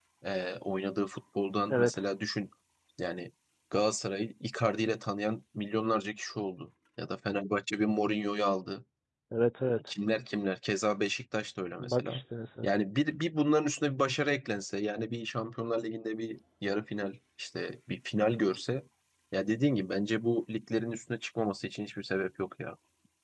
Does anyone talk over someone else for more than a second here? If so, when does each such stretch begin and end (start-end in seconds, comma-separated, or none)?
none